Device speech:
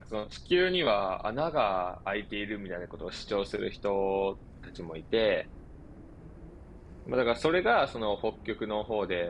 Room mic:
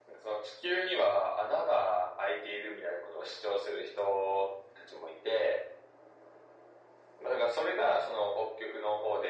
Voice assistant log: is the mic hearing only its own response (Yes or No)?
Yes